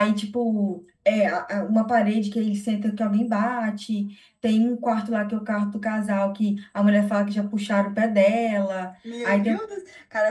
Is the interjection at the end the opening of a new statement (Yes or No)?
Yes